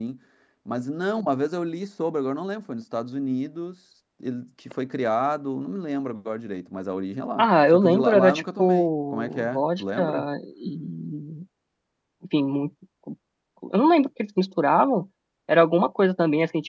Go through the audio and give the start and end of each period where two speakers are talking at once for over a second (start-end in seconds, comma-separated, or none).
7.4-10.0